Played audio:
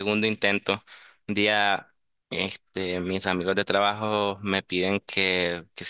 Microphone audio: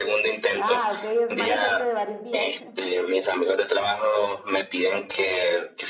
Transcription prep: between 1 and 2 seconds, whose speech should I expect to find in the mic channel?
both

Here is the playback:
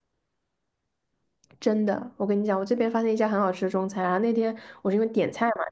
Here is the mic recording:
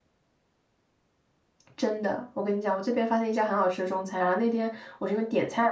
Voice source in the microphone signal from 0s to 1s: neither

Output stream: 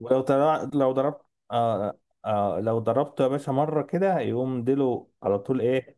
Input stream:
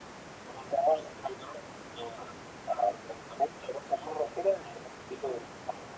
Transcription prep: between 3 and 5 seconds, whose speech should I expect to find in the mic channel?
echo only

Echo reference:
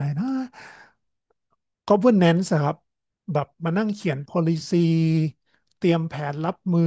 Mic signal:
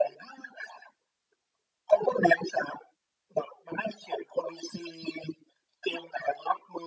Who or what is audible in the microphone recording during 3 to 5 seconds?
echo only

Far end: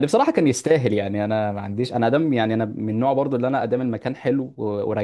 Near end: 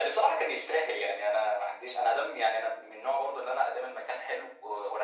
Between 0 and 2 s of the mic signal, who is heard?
echo only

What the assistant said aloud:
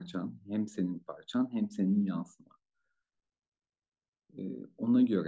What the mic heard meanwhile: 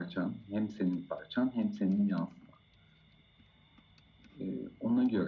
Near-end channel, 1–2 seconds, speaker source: echo only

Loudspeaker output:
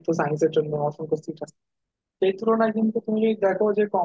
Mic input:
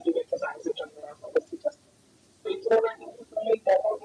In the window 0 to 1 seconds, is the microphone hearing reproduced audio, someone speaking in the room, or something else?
echo only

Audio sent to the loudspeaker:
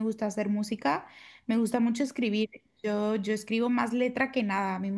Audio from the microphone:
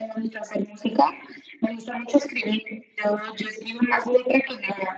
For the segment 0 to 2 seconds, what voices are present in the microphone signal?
echo only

